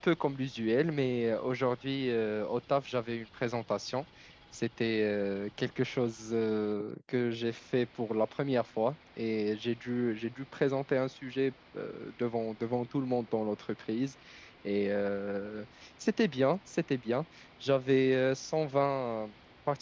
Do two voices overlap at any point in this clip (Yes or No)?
No